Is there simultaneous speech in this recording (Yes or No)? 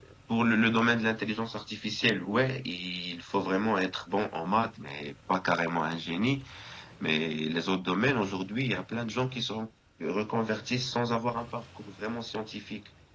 No